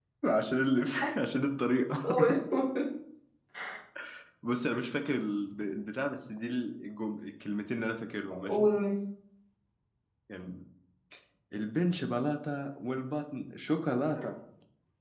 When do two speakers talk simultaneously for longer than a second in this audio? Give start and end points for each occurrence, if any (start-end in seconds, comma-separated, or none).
none